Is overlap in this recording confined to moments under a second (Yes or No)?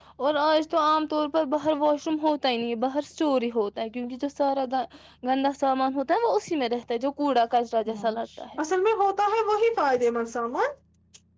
Yes